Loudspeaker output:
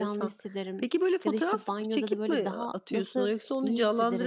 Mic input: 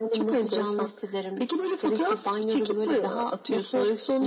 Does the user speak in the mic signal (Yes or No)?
No